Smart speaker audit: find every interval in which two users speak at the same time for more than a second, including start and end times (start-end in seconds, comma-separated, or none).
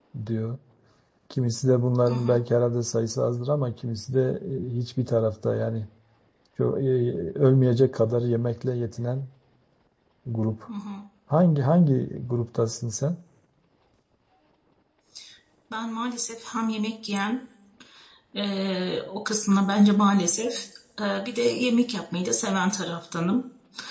none